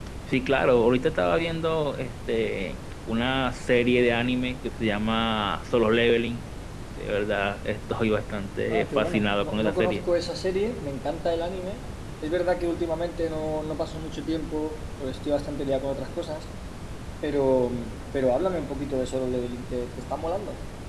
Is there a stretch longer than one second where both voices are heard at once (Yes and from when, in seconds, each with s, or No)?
Yes, from 8.7 s